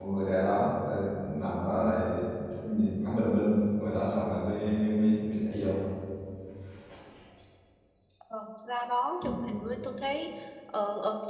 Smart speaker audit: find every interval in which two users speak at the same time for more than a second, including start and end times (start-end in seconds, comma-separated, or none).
none